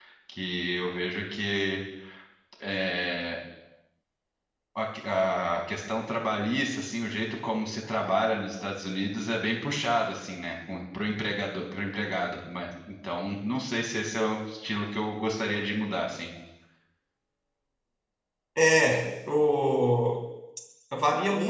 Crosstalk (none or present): none